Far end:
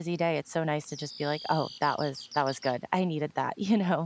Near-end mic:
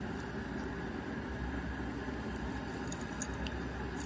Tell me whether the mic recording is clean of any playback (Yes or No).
Yes